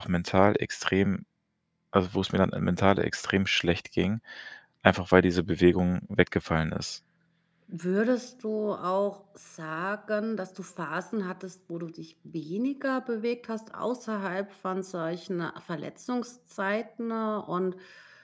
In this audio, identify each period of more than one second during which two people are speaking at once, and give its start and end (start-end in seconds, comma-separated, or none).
none